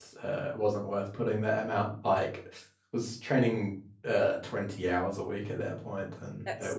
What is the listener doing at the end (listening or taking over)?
taking over